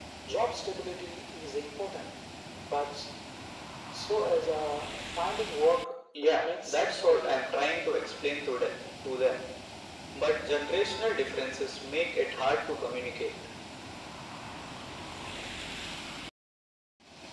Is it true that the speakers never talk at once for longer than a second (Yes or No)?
No